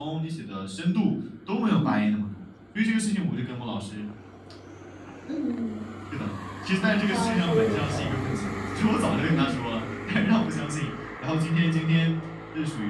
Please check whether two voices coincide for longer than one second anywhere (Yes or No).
Yes